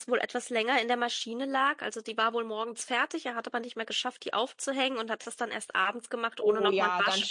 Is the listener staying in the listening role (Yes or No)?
No